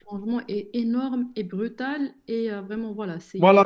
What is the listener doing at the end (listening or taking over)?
taking over